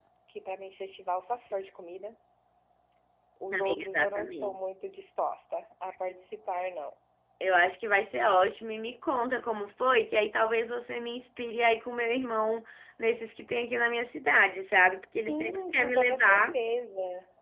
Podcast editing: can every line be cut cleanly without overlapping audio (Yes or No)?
No